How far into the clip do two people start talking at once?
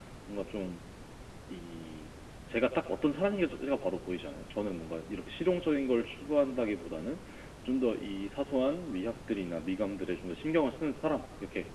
none

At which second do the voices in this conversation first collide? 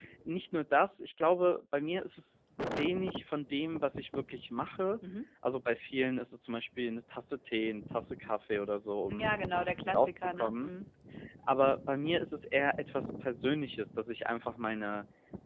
9.1 s

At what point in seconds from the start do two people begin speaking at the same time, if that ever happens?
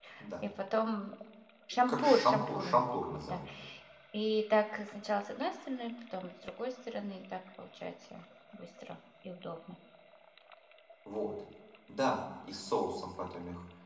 1.9 s

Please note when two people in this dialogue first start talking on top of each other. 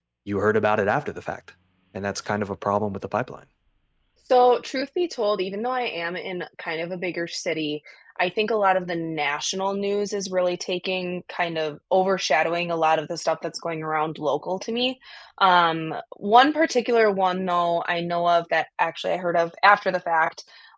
none

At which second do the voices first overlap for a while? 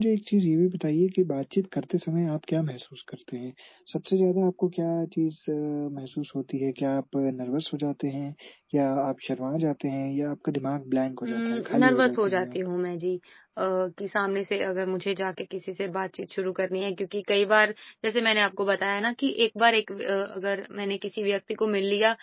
11.2 s

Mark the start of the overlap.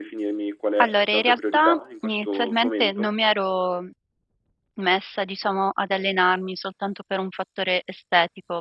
0.8 s

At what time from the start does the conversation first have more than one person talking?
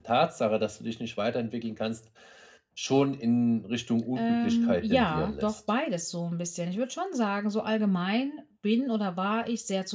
4.2 s

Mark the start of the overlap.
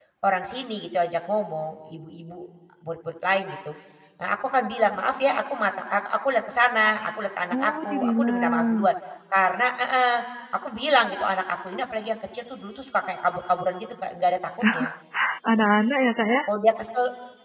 7.5 s

